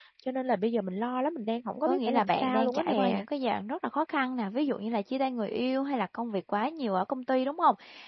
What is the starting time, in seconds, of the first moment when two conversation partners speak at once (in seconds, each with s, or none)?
1.9 s